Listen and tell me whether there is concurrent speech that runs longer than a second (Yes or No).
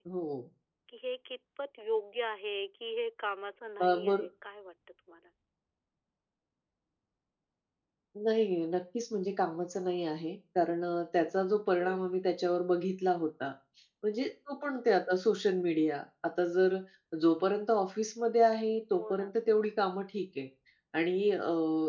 No